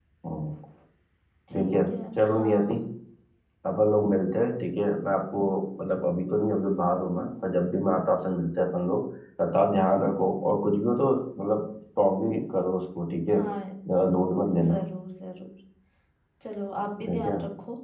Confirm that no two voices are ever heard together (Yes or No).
No